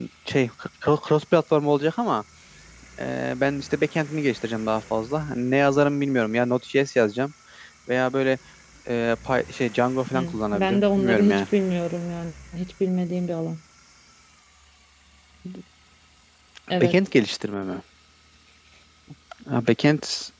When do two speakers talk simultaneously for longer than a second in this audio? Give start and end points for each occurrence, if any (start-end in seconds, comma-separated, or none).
10.1-11.4